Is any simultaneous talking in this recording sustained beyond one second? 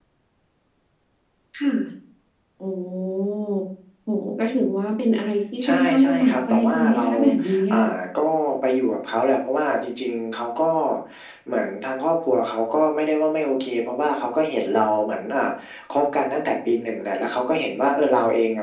Yes, from 5.6 s

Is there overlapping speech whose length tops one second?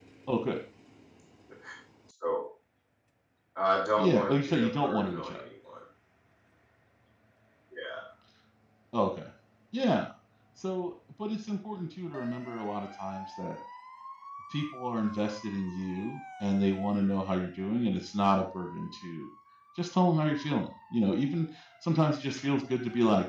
Yes, from 4.0 s

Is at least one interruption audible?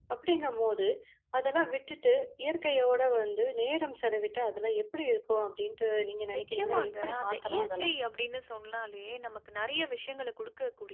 Yes, from 6.3 s

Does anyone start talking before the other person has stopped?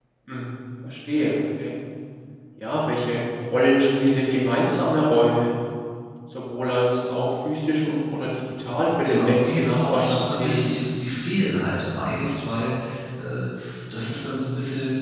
Yes, from 9.0 s

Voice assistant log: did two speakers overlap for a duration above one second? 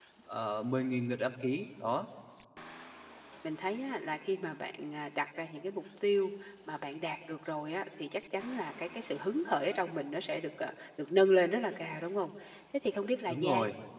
No

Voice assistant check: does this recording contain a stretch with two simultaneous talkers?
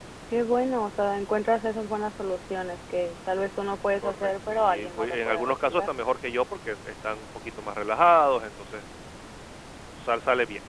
Yes, from 4.0 s

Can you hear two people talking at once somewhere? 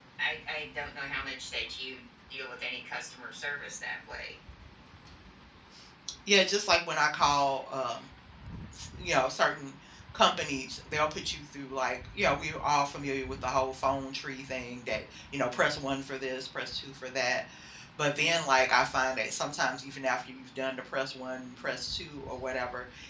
No

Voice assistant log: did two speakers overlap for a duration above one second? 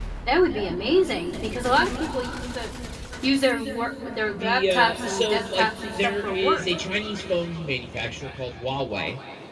Yes, from 4.3 s

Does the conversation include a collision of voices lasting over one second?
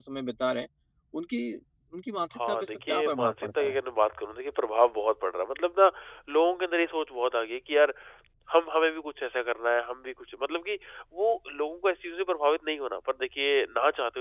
Yes, from 2.3 s

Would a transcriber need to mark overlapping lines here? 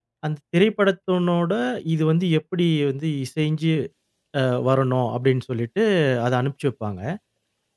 No

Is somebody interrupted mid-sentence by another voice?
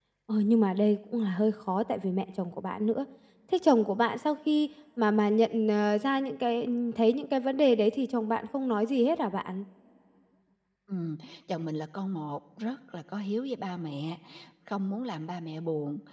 No

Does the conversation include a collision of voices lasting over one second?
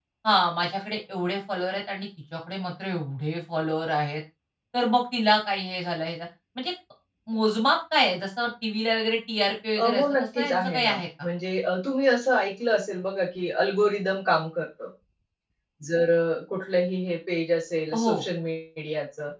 Yes, from 9.8 s

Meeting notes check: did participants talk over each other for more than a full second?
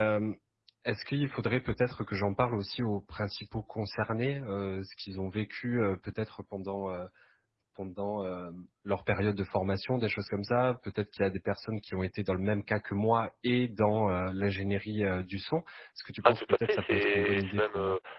Yes, from 16.2 s

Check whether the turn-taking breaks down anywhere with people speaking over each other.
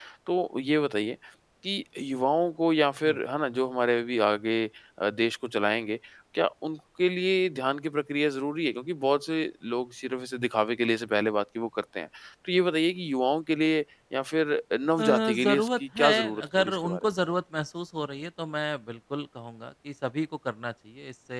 Yes, from 15.0 s

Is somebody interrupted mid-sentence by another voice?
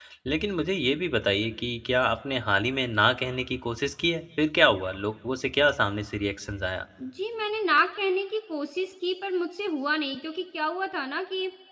No

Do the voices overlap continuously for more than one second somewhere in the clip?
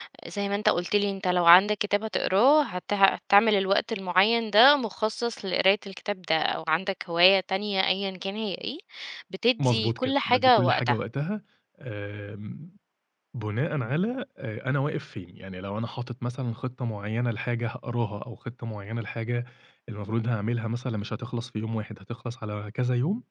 Yes, from 9.6 s

